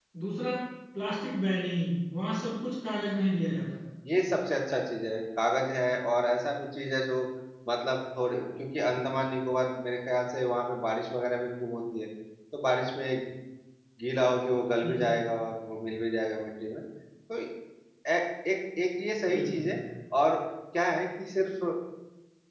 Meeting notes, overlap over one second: none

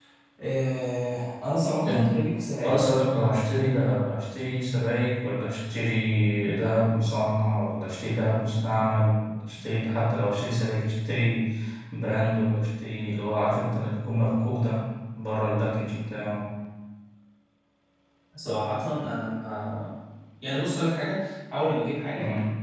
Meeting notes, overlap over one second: none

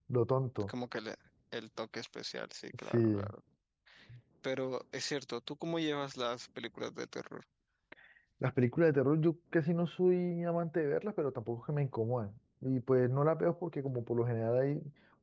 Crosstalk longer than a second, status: none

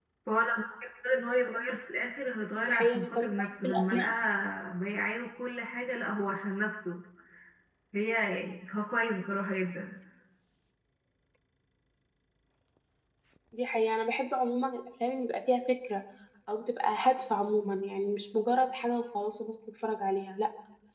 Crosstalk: present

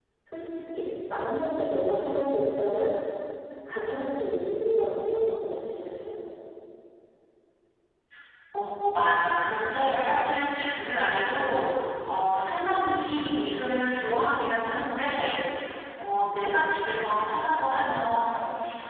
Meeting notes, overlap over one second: none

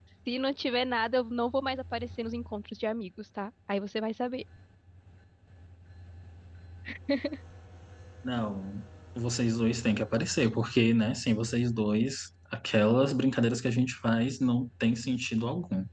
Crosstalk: none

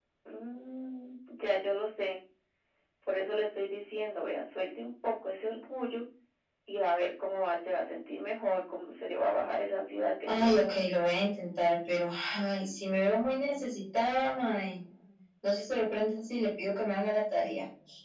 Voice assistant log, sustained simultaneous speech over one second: none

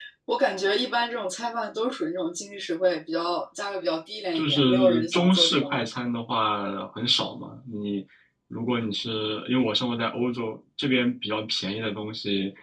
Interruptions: present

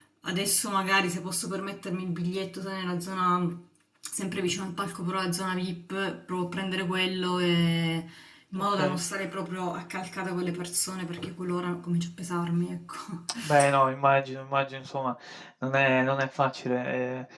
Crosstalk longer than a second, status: none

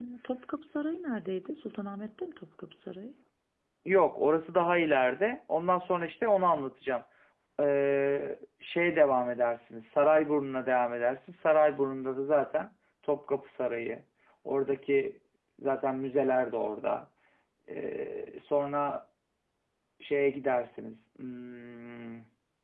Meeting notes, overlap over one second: none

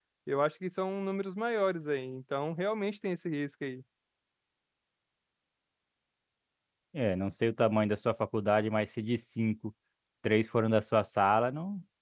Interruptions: none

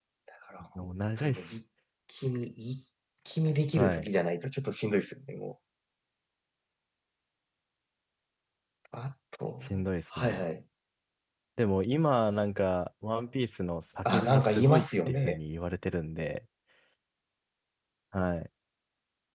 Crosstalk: present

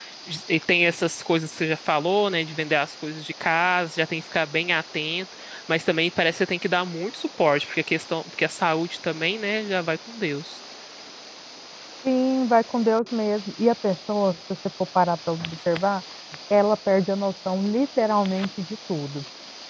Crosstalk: none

